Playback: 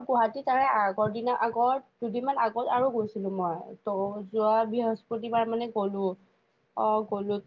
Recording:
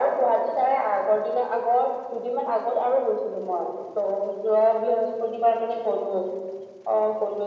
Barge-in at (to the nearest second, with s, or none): none